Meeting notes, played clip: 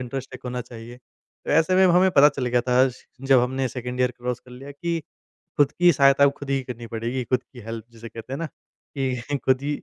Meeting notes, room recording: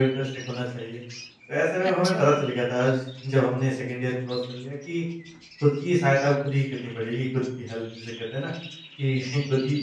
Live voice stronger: No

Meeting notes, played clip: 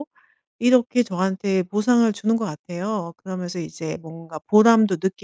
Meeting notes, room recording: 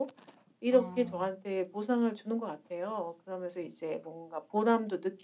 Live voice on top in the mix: No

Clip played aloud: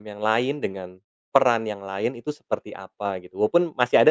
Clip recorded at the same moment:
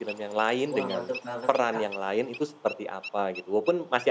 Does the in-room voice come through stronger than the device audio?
No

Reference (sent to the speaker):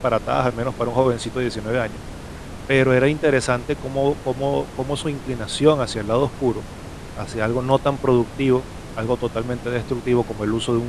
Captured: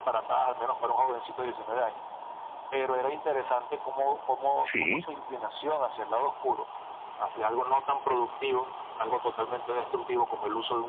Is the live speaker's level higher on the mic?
Yes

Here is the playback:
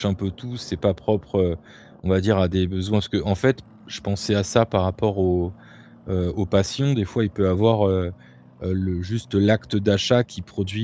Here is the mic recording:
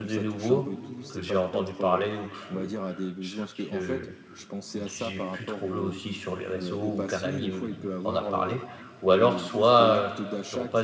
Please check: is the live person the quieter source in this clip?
No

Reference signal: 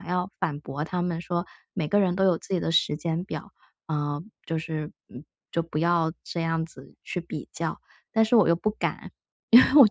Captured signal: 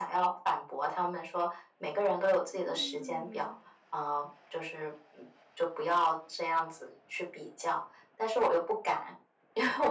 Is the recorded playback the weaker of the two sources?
No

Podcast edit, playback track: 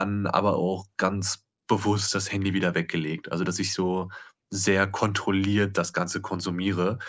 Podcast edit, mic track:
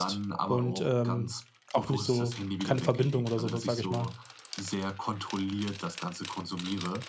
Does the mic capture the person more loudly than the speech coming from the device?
Yes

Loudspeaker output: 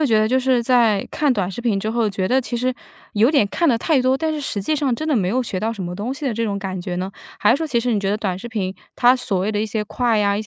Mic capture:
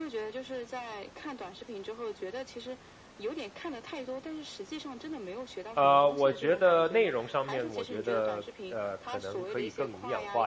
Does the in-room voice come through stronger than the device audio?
Yes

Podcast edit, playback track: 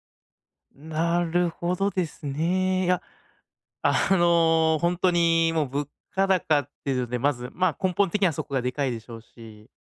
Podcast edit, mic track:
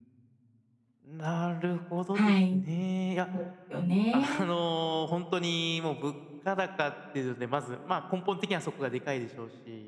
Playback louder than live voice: No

